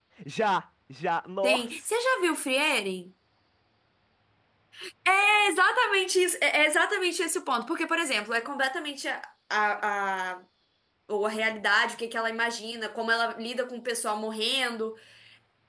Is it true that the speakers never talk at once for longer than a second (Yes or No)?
Yes